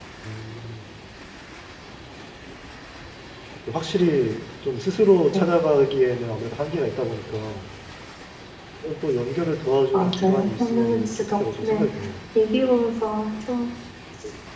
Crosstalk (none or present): present